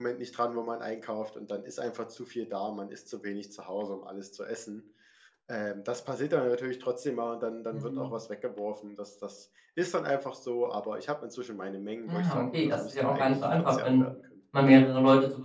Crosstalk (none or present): present